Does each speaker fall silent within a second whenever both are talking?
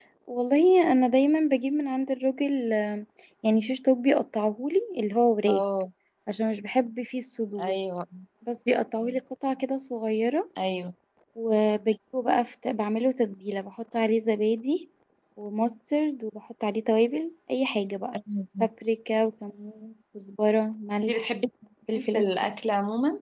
Yes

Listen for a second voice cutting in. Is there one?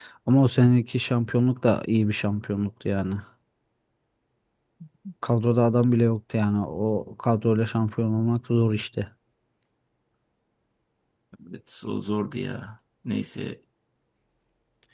No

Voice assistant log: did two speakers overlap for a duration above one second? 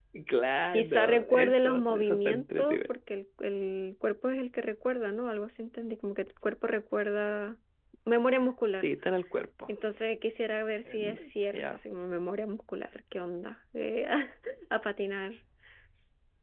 Yes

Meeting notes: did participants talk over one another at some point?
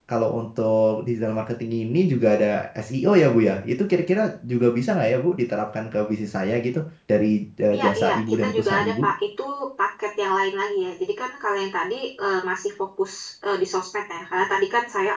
Yes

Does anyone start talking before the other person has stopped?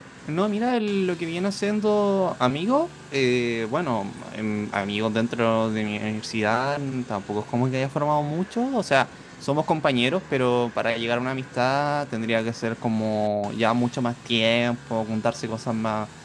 No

